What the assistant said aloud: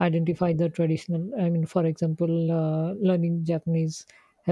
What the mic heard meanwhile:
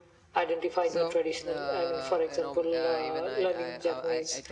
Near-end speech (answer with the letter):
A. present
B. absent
A